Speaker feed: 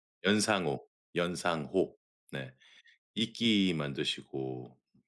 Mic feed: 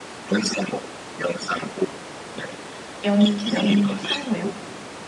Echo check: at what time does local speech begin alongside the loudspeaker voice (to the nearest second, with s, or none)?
3 s